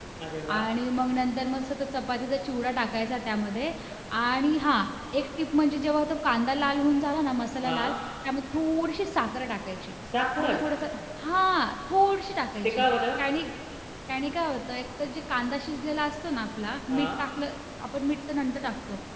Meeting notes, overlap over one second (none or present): none